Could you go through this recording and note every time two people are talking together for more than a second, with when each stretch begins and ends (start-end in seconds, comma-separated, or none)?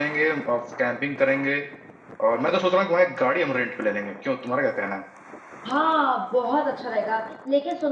none